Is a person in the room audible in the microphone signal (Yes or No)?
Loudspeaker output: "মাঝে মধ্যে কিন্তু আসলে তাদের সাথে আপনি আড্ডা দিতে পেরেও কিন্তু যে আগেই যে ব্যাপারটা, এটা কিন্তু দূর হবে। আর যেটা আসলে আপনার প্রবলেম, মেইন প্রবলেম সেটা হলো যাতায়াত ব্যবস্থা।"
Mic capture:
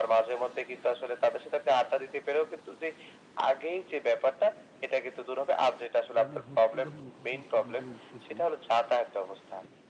Yes